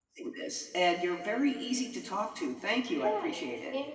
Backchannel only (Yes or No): No